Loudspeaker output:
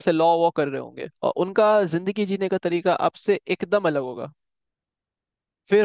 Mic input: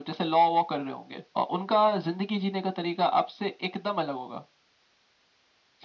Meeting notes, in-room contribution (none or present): none